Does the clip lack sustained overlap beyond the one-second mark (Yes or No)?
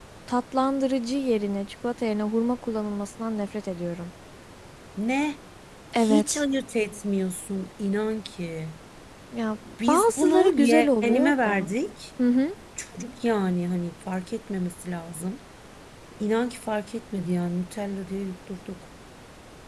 No